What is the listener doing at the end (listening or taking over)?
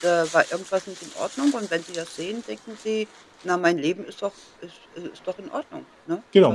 taking over